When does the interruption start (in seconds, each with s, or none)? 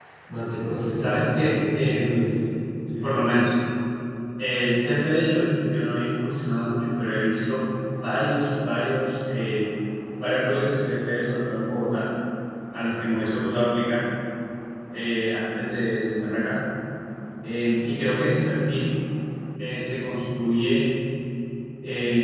0.9 s